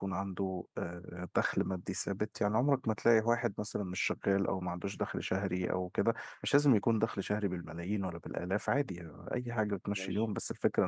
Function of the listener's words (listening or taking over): listening